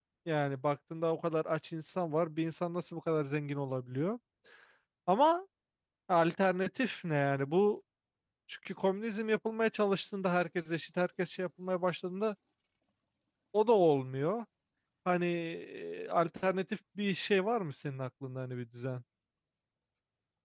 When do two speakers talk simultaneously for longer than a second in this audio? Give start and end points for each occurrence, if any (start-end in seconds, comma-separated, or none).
none